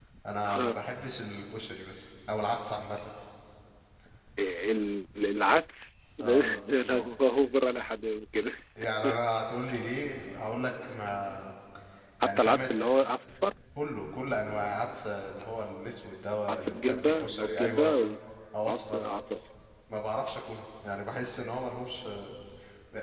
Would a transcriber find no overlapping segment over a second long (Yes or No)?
No